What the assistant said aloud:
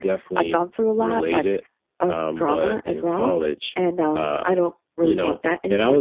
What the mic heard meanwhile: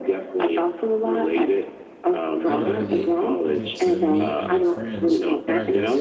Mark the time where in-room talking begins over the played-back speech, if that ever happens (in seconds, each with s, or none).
2.5 s